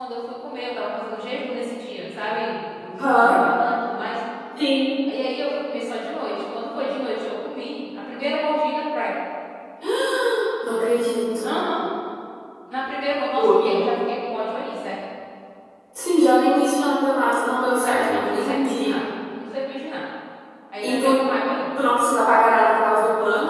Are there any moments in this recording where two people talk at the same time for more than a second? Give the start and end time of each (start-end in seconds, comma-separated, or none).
17.7-18.9